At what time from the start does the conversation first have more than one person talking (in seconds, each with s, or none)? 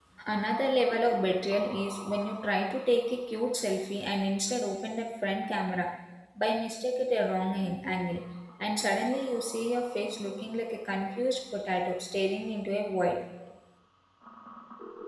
none